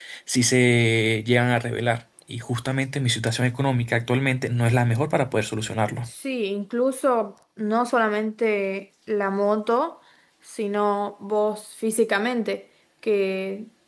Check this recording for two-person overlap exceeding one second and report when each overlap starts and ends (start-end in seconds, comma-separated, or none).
none